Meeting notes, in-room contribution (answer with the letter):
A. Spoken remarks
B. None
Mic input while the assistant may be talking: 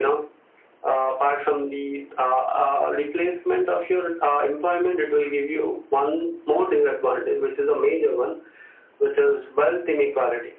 B